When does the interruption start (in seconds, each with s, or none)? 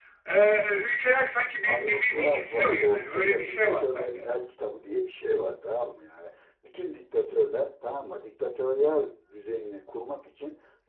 1.6 s